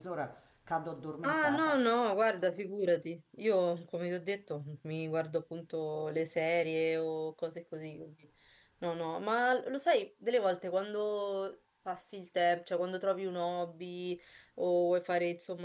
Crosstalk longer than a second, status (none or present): none